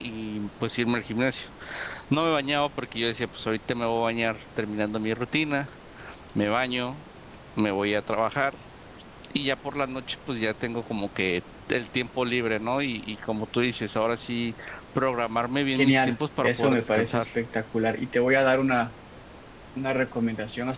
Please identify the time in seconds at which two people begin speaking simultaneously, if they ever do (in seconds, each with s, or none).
15.7 s